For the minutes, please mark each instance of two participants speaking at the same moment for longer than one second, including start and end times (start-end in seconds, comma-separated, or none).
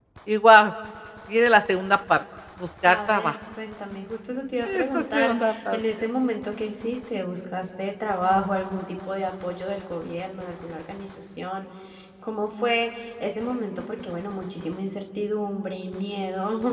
4.6-6.1